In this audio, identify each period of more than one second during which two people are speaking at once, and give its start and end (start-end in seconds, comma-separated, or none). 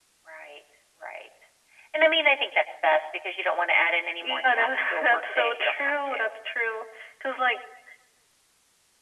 4.2-6.3